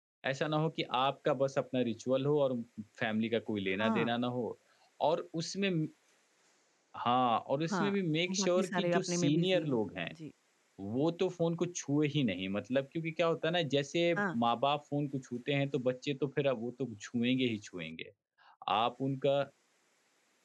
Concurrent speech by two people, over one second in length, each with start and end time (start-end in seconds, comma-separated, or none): 8.4-9.8